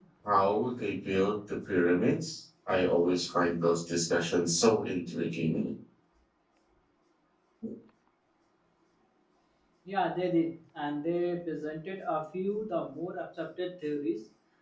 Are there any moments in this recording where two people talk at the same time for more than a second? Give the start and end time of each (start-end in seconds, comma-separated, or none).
none